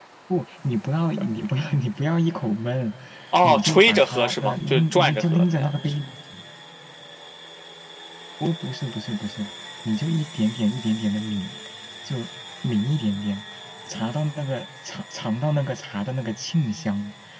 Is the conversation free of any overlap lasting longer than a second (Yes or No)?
No